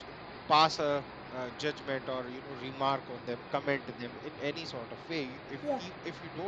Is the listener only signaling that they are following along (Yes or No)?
Yes